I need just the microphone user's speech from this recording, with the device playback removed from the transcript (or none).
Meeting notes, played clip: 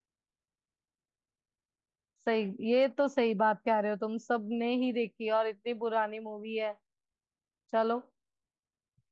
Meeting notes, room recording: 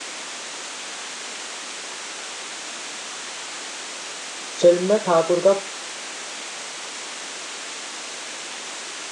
फिल्म में ठाकुर का